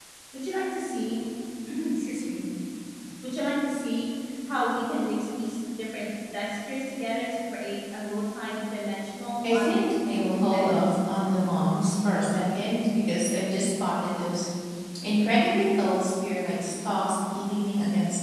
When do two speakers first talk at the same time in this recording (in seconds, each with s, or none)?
9.4 s